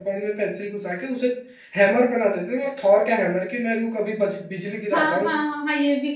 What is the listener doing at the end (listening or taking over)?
taking over